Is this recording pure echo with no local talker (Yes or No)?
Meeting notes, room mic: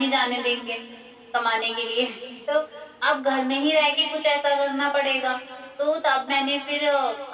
Yes